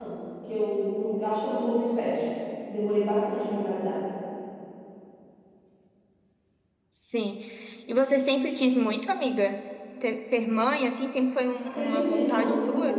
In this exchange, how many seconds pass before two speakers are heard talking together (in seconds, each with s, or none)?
11.6 s